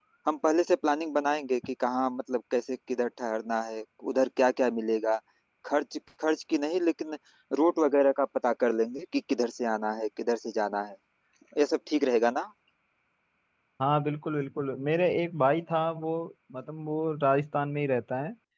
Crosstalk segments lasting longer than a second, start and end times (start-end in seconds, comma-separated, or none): none